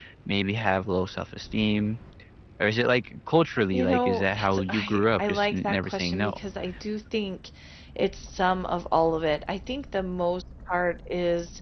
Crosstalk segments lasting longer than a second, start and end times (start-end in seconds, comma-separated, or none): 3.7-6.3